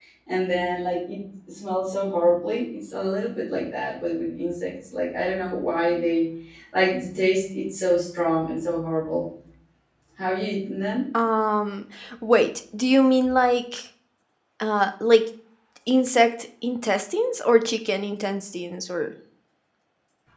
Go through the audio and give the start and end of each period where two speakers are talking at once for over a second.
none

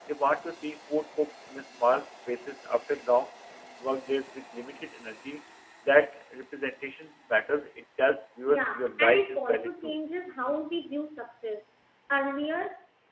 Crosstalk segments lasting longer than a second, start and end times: 8.5-9.9

